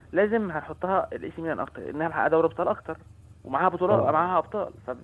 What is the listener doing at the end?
listening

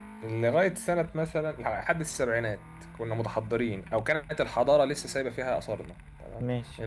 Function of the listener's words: listening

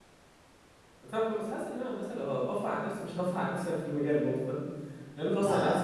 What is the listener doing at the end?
taking over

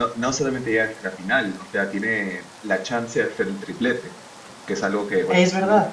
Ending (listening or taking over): listening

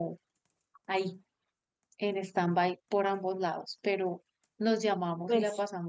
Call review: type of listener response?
listening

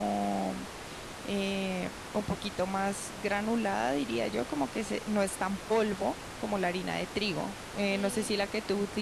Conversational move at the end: listening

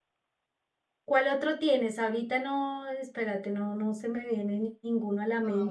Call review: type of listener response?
taking over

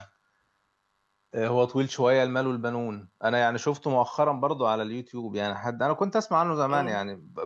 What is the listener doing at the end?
listening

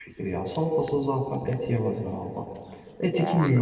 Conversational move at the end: listening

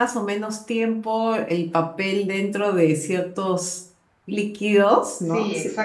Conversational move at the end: taking over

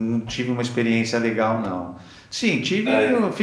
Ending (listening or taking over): listening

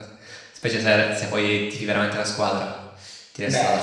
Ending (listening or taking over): taking over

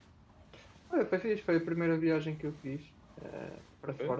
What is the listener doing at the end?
listening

